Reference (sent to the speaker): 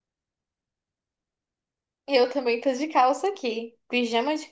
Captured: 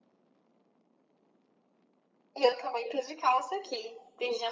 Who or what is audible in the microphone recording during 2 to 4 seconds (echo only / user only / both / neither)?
echo only